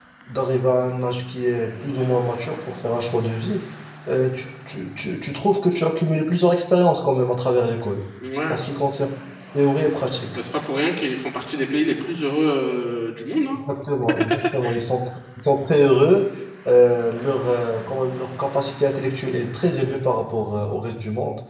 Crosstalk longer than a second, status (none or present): none